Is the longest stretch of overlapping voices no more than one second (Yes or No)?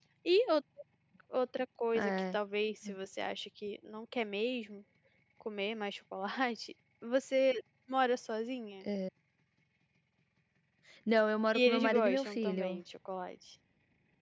No